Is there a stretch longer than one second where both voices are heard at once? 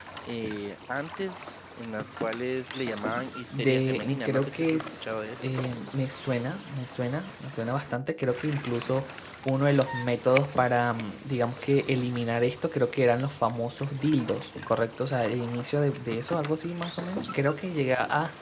Yes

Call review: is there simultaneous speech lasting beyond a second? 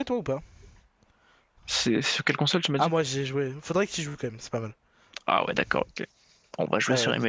No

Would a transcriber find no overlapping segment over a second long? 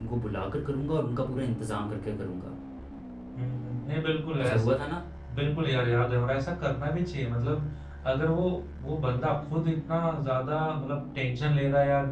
Yes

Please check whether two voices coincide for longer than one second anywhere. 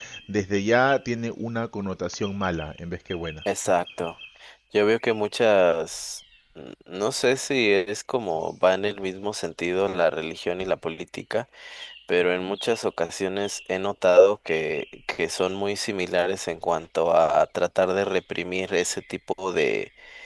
No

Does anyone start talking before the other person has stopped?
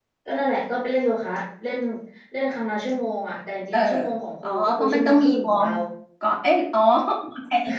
Yes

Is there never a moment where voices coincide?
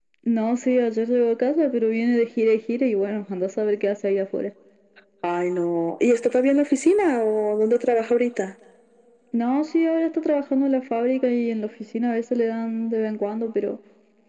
Yes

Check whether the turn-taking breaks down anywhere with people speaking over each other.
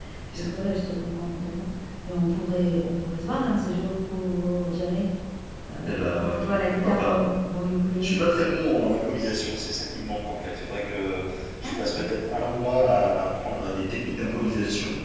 Yes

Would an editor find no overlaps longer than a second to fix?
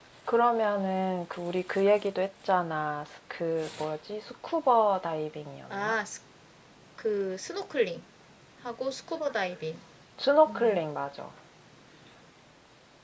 Yes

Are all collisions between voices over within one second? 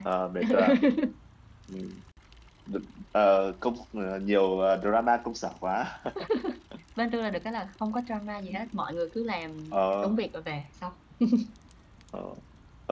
Yes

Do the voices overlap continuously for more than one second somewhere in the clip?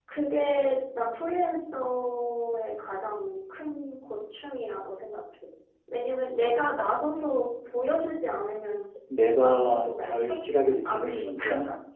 Yes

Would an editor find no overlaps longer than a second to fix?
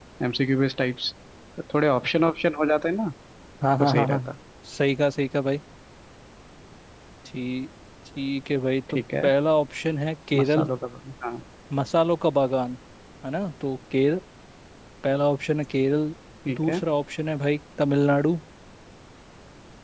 Yes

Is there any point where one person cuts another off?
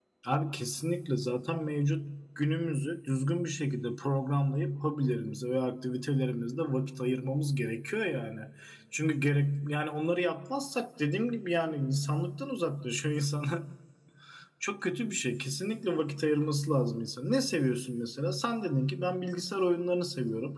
No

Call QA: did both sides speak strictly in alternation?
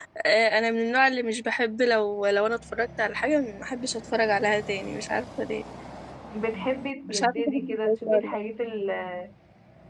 No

